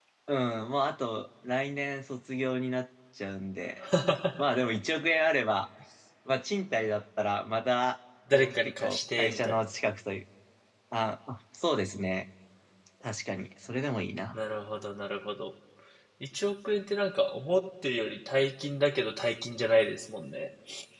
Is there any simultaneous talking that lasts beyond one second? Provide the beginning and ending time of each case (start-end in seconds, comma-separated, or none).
8.3-9.6